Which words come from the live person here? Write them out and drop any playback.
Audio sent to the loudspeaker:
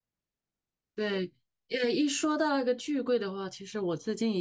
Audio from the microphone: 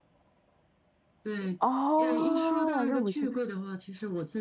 哦，让我去

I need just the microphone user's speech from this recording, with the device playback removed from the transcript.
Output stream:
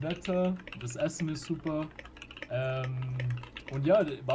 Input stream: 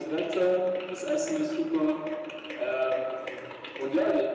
none

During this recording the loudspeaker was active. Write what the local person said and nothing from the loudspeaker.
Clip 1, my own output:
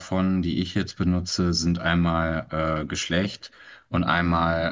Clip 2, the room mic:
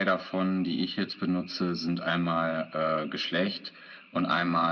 none

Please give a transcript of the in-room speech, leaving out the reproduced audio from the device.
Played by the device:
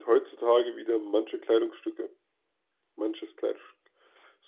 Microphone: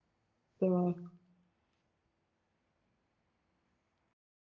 der war,

